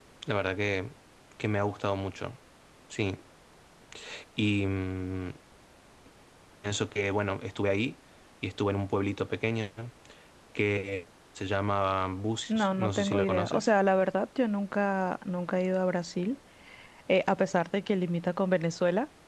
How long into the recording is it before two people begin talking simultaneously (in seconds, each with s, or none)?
12.5 s